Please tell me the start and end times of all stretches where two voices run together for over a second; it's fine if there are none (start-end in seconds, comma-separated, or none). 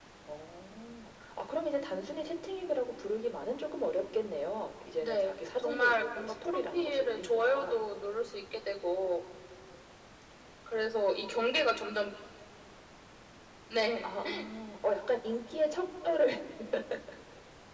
5.0-7.8